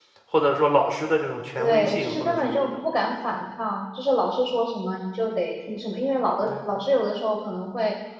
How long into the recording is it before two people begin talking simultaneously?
1.6 s

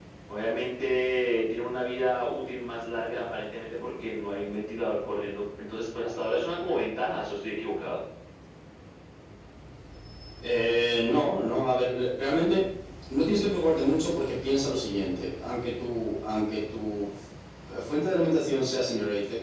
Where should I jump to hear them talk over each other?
none

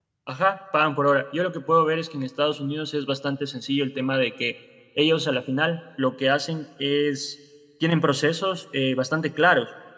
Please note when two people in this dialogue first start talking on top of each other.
none

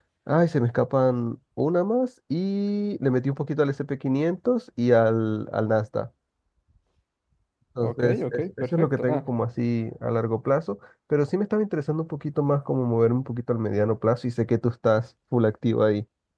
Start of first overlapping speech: 7.8 s

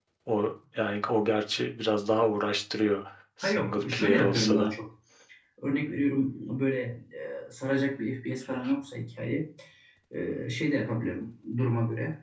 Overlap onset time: 3.4 s

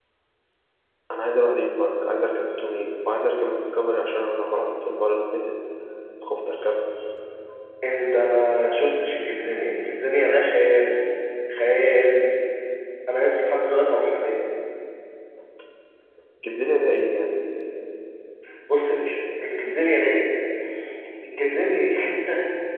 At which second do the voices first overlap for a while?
none

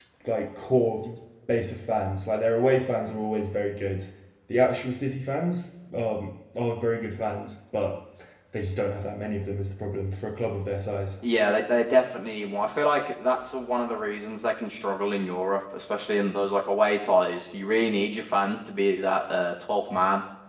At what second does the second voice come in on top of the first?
none

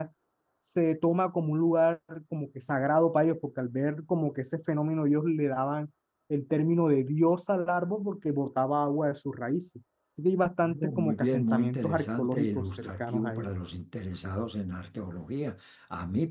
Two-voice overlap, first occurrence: 10.6 s

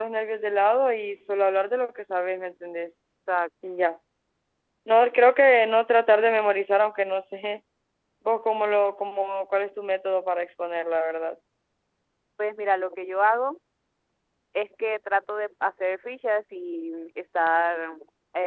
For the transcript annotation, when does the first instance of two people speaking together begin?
none

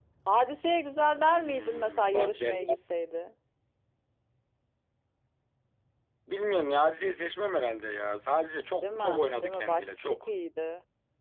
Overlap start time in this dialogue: 1.2 s

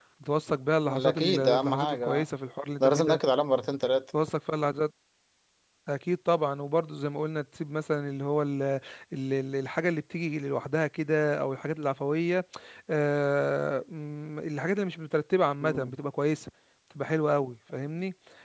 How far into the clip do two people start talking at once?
0.8 s

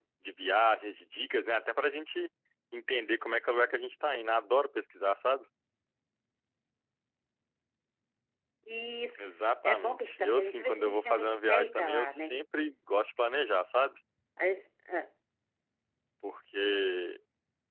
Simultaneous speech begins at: 9.2 s

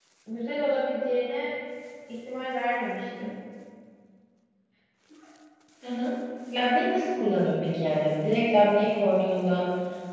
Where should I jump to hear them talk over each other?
none

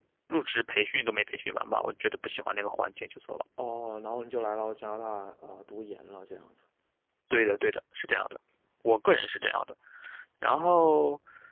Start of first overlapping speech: none

